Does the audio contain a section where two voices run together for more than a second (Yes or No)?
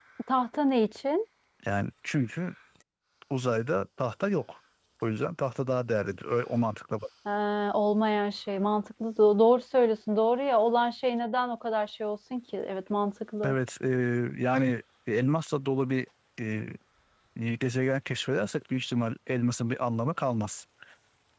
No